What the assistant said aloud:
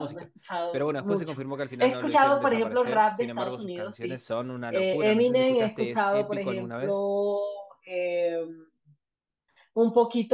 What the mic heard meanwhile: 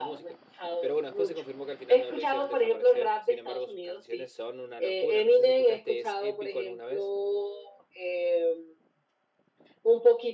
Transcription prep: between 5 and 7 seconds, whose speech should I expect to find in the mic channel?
echo only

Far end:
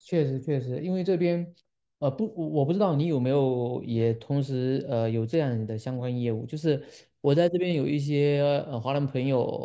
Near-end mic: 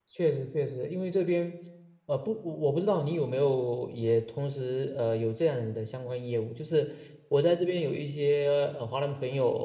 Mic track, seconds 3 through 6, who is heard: echo only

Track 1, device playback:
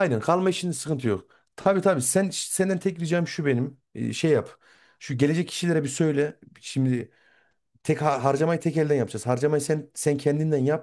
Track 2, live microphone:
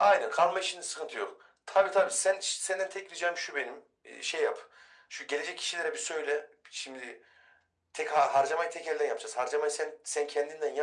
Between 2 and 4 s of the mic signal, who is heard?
echo only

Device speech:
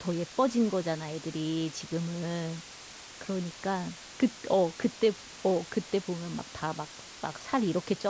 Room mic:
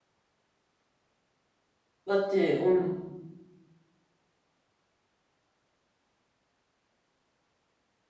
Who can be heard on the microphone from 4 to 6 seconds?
neither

